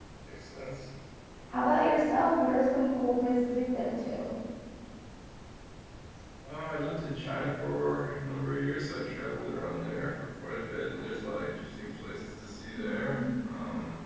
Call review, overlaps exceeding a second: none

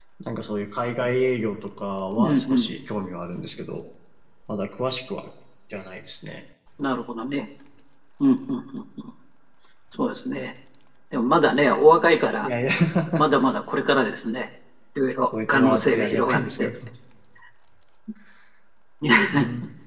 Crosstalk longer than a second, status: present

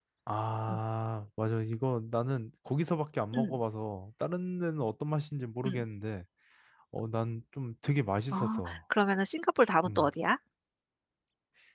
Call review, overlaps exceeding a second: none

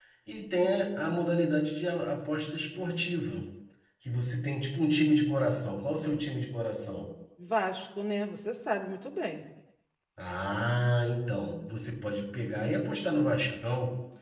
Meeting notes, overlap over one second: none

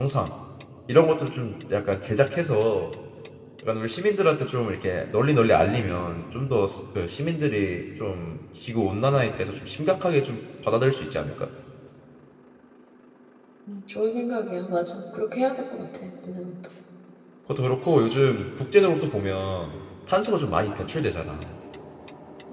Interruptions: none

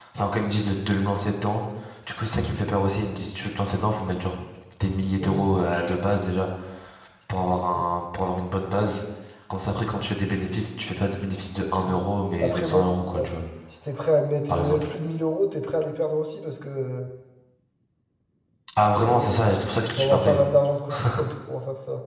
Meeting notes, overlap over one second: none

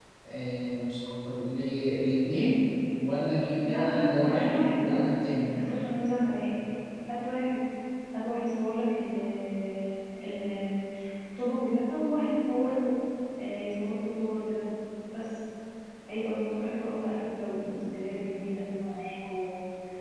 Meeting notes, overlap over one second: present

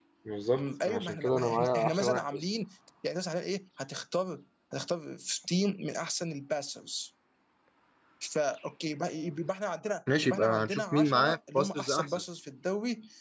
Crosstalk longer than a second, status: present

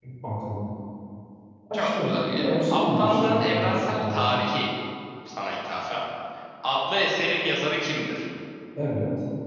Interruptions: present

